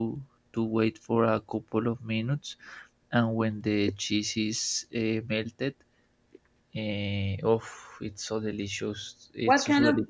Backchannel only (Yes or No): No